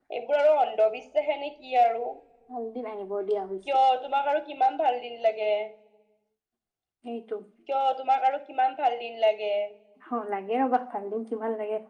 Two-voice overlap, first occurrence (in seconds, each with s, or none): none